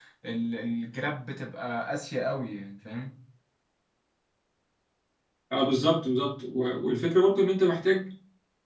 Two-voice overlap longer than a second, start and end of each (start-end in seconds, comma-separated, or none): none